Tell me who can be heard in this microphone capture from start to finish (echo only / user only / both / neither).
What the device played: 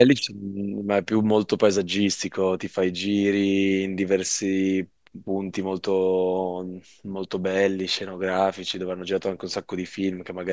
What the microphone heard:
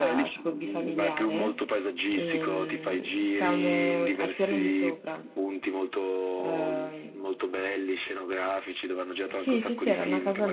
both